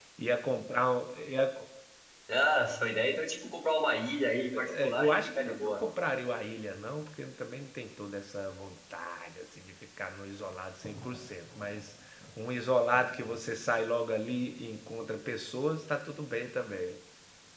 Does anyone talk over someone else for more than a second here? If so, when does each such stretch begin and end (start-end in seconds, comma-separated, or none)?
4.5-5.8